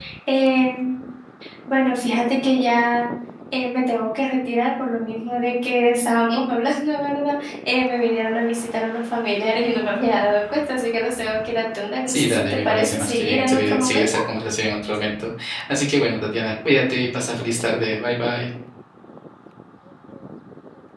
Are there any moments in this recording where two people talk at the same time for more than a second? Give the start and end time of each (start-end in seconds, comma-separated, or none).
12.1-14.2